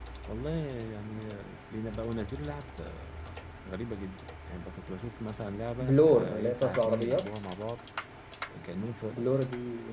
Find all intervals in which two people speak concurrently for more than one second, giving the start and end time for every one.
5.8-7.3

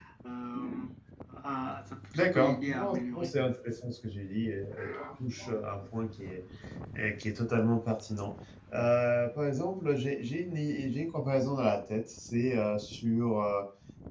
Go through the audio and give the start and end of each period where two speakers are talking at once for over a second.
2.1-3.4

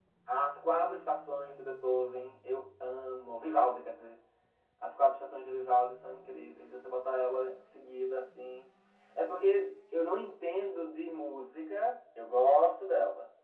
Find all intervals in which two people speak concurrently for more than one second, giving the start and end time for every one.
none

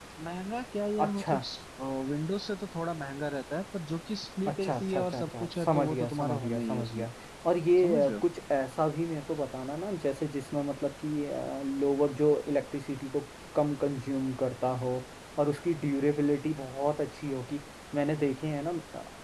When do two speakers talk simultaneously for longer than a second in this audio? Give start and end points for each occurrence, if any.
4.5-7.0

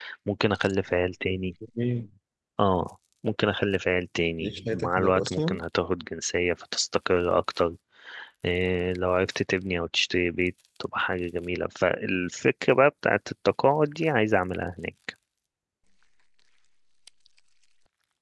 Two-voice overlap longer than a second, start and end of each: 4.4-5.6

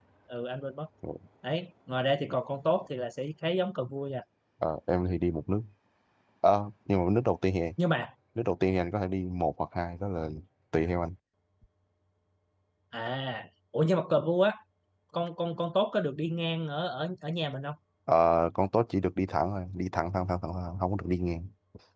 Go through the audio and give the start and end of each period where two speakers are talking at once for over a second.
none

